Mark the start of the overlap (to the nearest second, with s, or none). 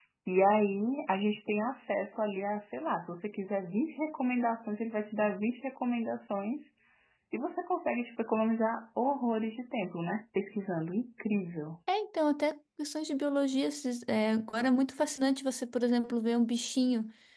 none